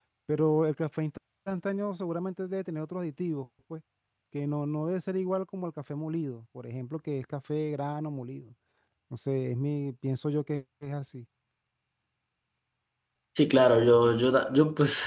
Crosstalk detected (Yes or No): No